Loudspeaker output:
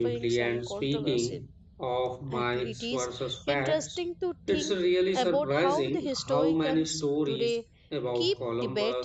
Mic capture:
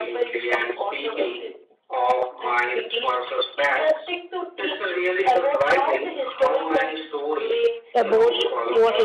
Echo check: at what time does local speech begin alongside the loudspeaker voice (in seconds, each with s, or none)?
8.0 s